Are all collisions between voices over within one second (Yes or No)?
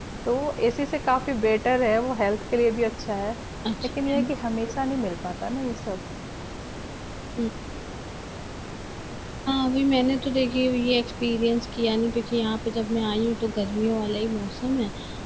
Yes